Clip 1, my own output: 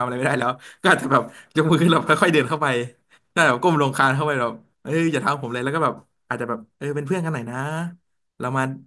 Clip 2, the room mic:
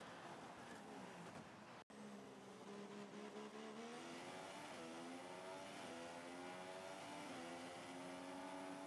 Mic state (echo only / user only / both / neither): neither